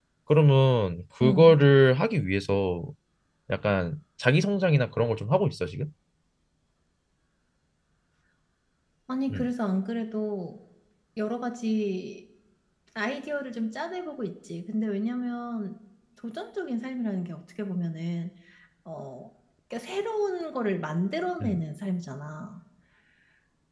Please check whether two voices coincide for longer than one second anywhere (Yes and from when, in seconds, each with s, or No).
No